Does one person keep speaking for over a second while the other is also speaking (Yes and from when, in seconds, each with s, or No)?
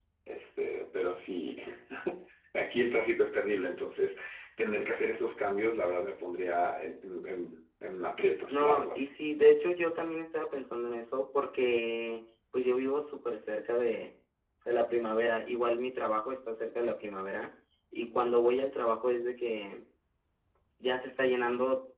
No